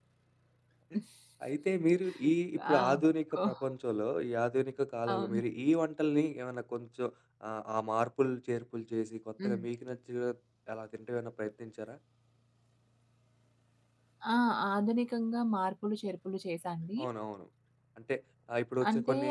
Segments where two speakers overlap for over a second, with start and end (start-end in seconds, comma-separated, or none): none